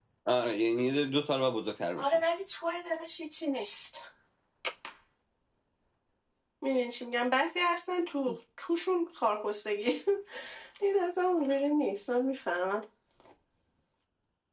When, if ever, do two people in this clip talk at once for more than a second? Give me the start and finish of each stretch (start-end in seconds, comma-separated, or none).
none